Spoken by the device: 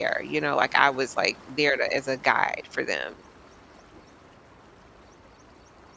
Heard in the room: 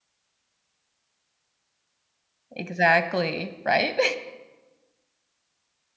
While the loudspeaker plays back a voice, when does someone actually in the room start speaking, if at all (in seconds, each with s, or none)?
2.5 s